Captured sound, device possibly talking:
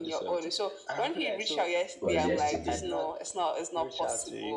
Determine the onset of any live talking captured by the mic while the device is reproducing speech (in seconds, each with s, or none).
2.0 s